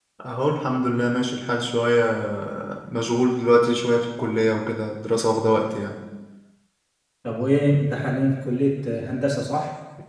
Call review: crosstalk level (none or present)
none